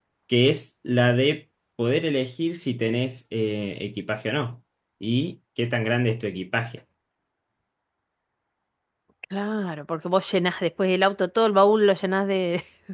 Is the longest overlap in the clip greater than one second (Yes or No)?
No